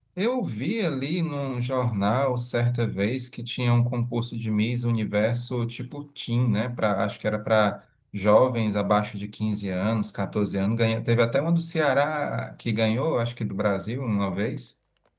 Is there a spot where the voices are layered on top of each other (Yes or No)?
No